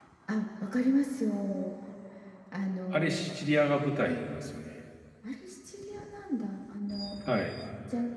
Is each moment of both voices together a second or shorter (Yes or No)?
Yes